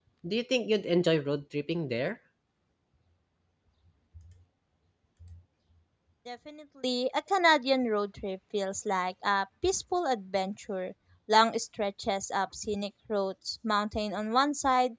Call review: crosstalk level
none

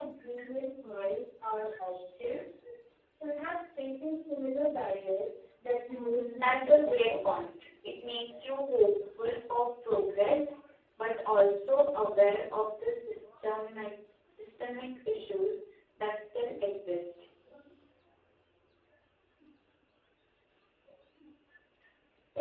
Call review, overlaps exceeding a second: present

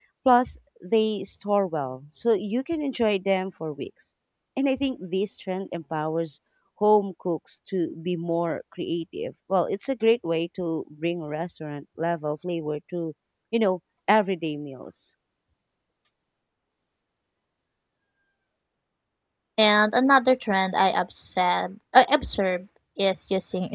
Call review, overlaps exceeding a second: none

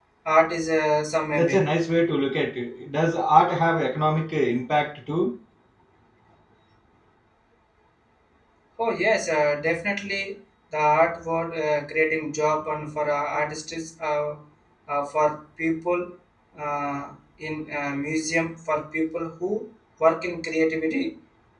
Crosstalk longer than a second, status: none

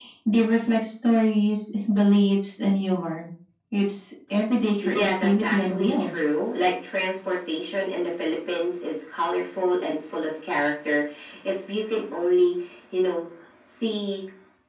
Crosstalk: present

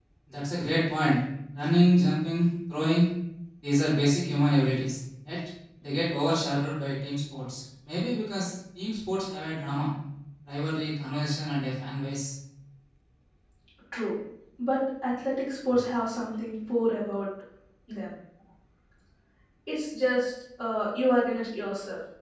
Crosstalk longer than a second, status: none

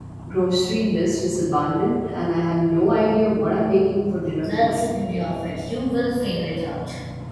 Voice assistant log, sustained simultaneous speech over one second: none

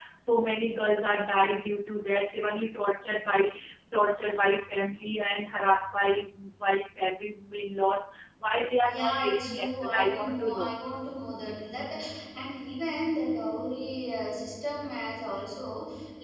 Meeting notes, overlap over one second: present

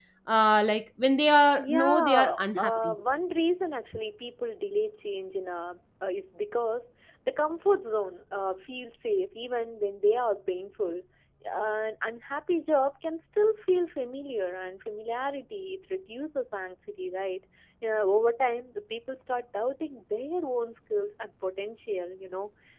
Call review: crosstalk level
present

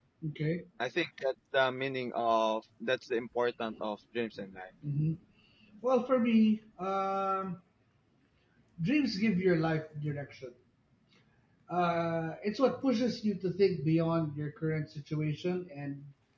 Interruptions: none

